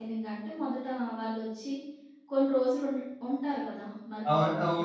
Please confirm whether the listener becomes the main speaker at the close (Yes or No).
Yes